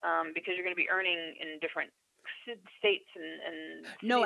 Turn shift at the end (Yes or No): Yes